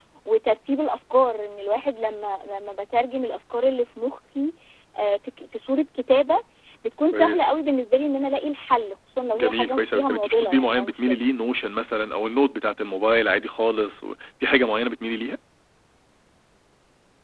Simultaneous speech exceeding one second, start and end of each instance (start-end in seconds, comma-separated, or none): 9.3-11.2